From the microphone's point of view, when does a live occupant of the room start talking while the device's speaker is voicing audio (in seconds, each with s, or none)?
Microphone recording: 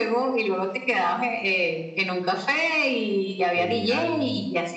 3.5 s